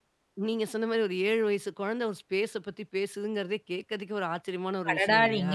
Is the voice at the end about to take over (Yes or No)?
Yes